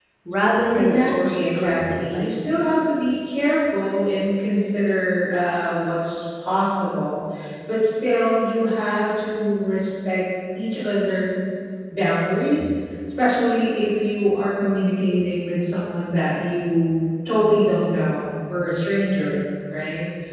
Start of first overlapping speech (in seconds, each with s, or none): 0.7 s